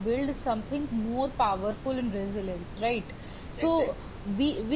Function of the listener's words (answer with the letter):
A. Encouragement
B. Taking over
A